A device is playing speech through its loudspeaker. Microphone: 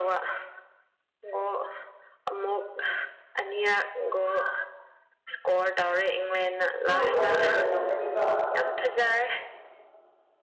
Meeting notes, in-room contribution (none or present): present